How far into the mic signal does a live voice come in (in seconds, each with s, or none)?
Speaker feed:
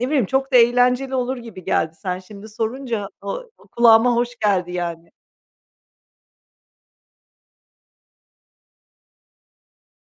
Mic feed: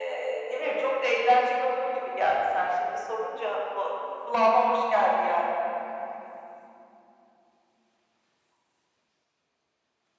none